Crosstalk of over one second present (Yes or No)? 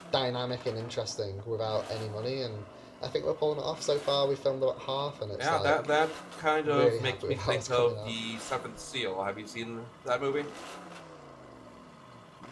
Yes